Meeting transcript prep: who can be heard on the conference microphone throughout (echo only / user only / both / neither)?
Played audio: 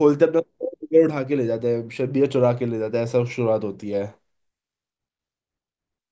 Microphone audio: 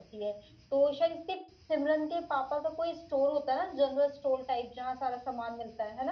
user only